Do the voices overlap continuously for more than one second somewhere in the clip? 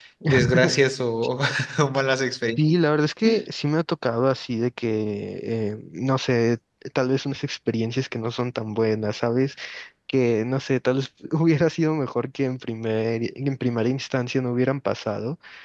No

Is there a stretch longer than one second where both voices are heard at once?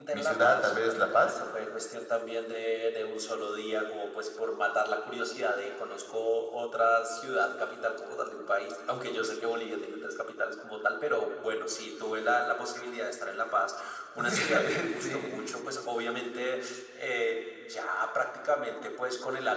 Yes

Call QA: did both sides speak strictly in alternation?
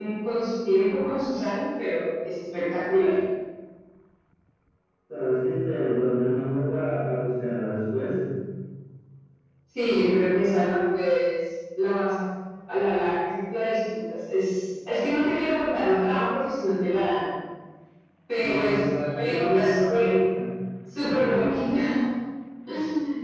No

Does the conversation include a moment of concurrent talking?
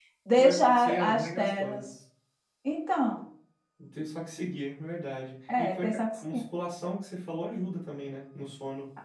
Yes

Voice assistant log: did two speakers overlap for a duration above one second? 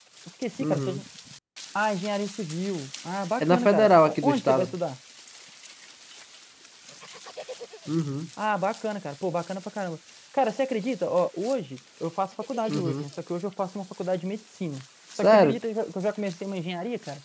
Yes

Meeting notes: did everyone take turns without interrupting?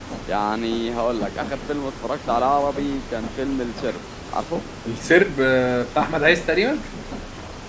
Yes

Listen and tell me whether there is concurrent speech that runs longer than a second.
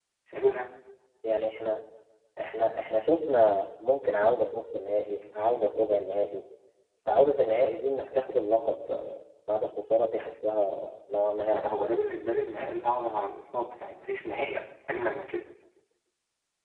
No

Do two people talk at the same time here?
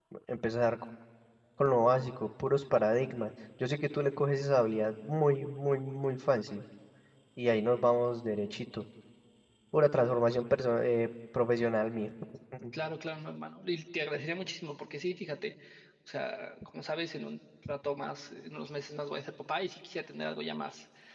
No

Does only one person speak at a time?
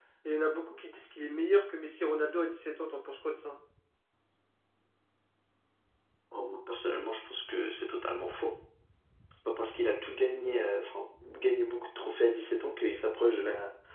Yes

